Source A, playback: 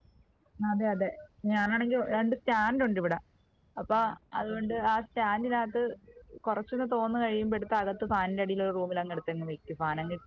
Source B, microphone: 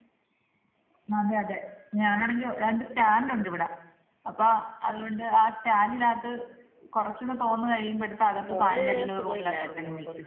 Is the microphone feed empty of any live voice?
No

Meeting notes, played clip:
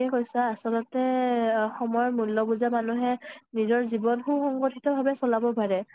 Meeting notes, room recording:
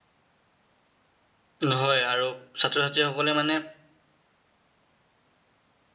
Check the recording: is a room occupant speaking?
Yes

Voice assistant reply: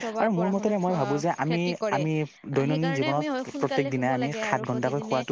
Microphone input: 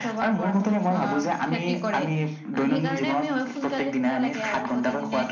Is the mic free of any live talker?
Yes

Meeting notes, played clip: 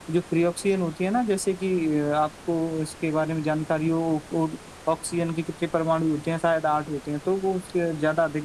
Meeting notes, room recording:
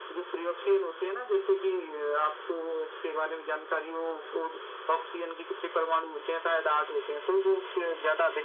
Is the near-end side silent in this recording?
Yes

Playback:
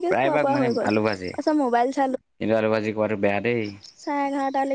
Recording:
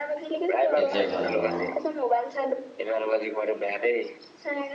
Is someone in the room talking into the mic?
Yes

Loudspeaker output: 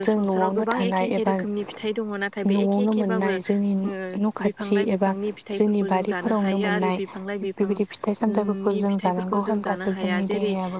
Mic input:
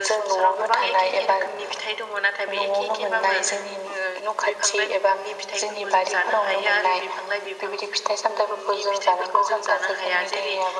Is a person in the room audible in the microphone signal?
No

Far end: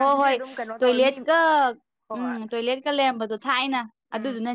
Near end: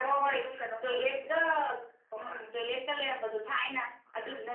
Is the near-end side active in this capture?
No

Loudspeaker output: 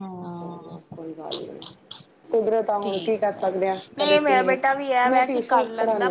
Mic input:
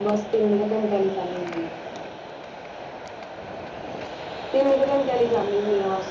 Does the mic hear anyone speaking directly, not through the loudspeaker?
Yes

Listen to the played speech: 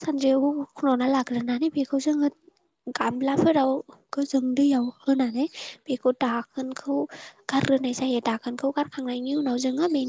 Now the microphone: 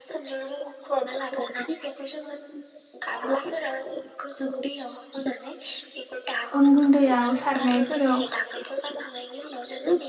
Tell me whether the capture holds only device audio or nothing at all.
No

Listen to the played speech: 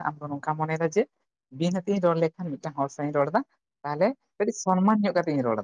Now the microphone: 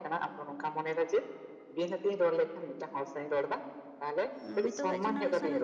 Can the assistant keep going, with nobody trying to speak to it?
No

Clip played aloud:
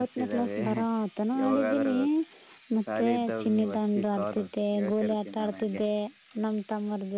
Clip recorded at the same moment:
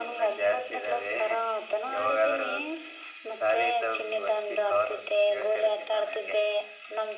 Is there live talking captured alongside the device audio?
No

